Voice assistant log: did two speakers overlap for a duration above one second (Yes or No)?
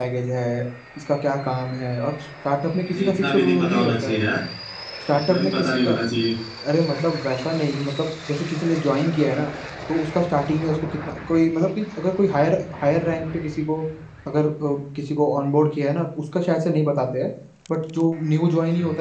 Yes